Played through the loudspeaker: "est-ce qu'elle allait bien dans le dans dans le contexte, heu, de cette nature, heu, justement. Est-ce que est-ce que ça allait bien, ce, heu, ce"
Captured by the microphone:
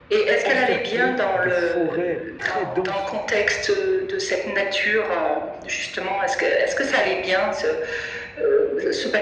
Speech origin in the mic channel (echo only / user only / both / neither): both